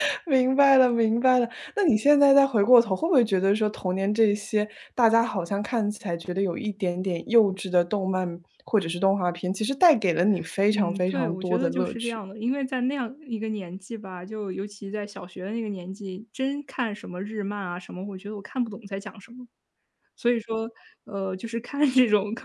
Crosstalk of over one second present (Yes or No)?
Yes